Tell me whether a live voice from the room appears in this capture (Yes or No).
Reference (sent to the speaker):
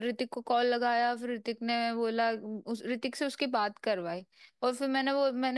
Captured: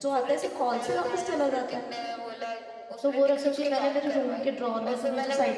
Yes